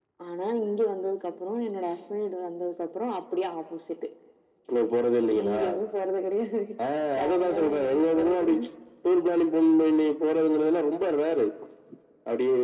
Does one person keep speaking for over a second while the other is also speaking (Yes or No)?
Yes